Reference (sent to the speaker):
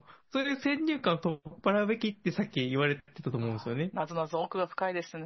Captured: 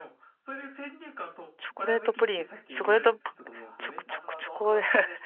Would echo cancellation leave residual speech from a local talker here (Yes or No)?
Yes